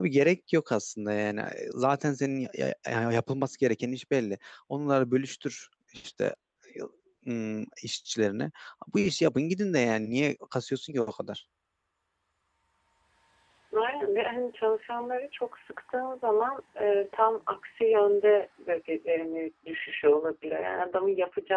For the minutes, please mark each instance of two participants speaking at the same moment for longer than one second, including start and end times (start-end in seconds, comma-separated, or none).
none